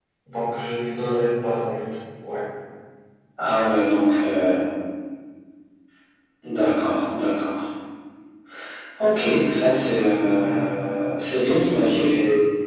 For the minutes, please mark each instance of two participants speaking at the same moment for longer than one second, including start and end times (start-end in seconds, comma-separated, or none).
none